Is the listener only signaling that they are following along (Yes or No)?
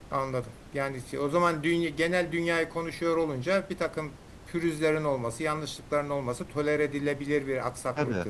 No